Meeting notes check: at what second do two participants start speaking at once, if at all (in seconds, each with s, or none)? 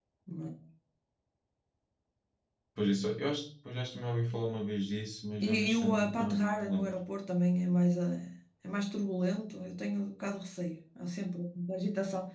5.4 s